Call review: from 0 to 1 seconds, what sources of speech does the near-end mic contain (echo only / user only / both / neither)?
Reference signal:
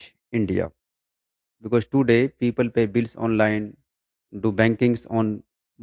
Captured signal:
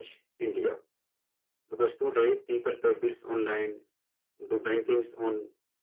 echo only